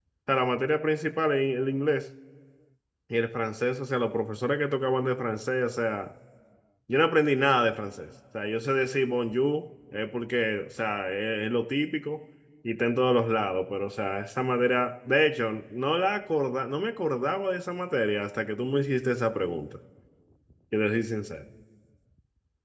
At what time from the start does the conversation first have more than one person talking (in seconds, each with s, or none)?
none